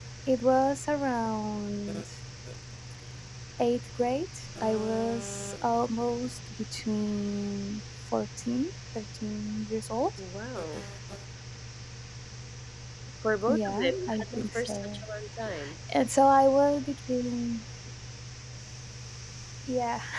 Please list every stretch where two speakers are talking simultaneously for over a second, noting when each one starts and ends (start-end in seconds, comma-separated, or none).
13.5-15.0